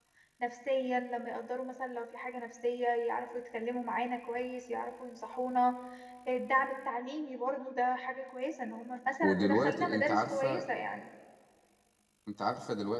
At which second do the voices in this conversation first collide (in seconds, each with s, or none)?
9.2 s